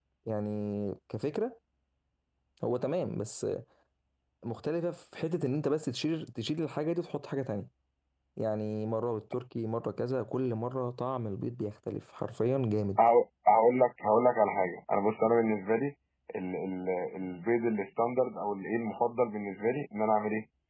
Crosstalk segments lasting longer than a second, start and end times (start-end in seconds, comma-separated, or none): none